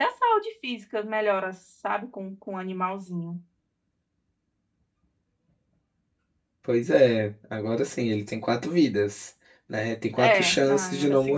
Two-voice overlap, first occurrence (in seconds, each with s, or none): 10.2 s